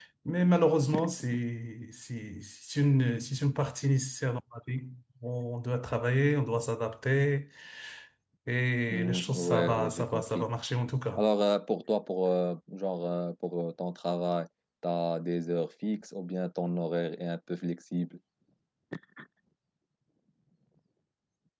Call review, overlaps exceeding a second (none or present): present